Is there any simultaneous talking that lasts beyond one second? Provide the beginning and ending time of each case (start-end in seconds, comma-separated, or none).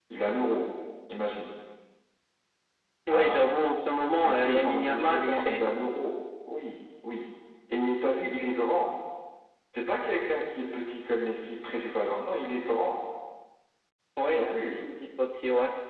4.2-5.6